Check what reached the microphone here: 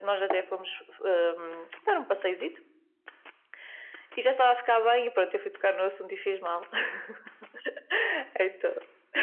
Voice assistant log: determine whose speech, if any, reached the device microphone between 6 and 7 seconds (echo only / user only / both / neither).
echo only